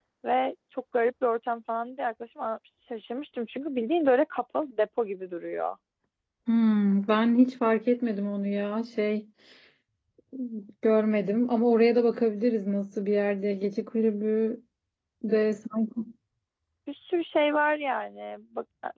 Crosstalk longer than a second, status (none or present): none